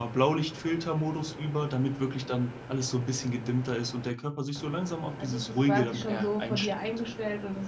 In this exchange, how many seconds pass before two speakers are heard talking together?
5.2 s

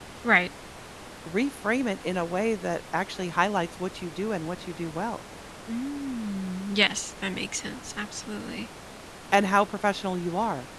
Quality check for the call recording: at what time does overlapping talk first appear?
none

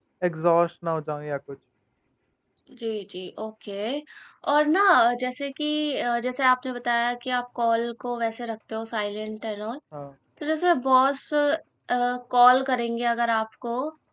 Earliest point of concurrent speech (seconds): none

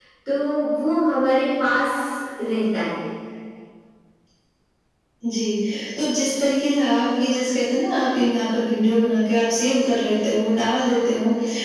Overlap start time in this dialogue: none

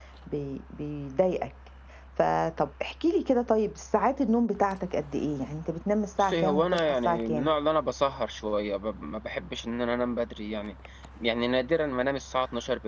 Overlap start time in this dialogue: 6.2 s

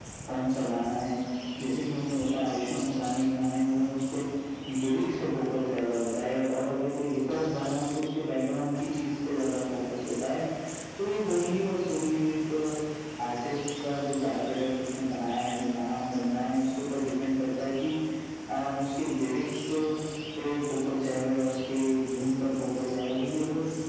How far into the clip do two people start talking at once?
none

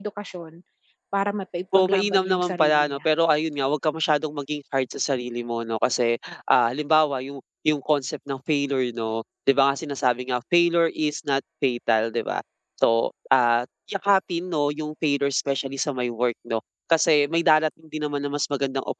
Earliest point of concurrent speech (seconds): 1.8 s

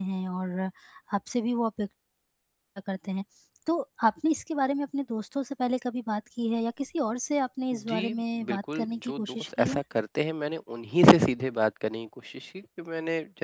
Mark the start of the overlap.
7.9 s

